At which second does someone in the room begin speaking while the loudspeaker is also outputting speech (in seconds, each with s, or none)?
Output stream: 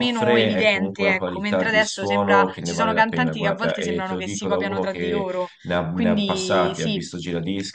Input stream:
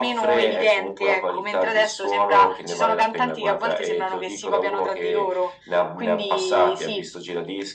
none